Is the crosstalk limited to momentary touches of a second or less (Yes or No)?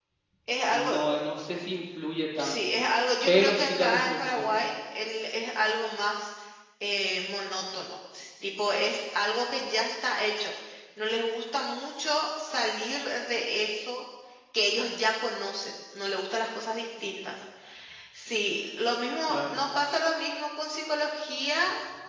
No